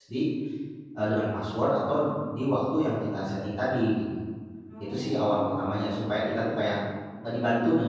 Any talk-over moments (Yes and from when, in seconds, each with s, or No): Yes, from 4.8 s